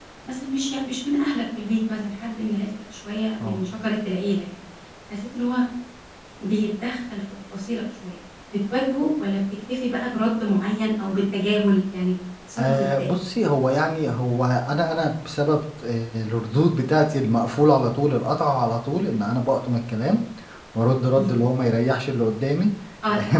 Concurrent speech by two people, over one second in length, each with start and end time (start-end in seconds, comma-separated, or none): none